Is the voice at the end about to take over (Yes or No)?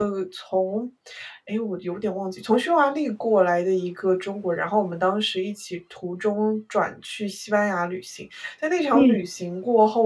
No